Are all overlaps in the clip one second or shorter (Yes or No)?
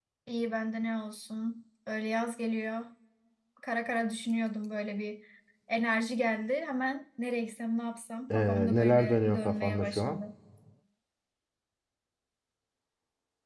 No